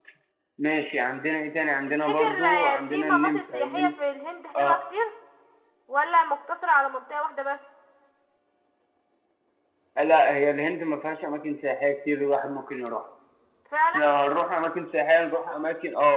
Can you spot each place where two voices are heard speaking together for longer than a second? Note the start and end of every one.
2.1-3.9

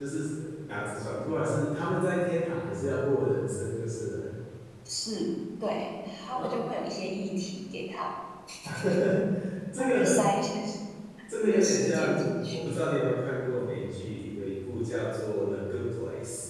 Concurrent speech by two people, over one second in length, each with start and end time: 11.4-12.7

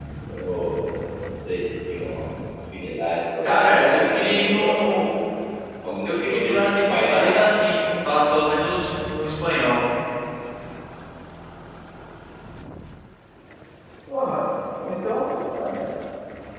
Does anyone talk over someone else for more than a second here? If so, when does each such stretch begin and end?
3.4-5.0, 6.0-7.6

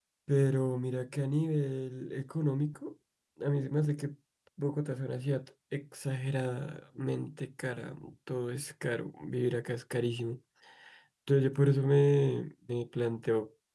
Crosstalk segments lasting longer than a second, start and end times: none

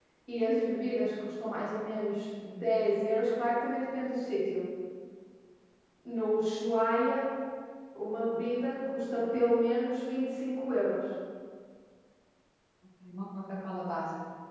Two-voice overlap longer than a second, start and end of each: none

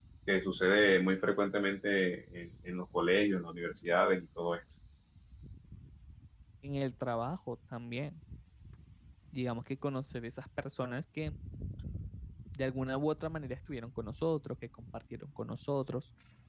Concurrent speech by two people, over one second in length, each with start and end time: none

